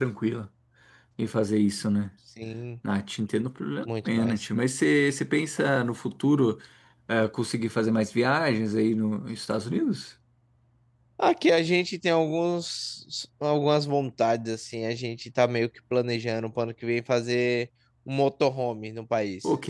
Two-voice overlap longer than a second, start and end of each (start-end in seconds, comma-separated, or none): none